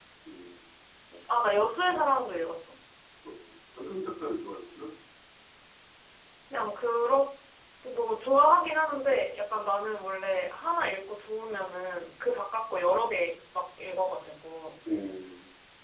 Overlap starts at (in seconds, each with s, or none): none